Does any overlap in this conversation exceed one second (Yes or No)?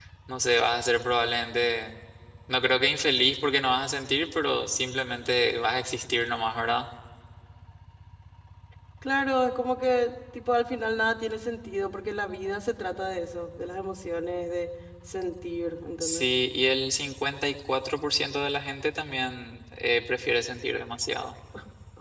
No